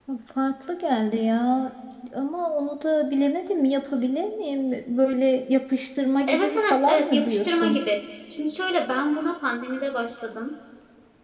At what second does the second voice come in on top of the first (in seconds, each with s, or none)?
6.3 s